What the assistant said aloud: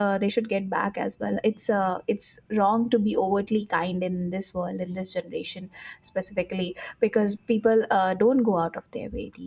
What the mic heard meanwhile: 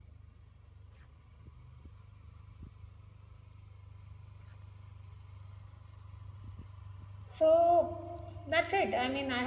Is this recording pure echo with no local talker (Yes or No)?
No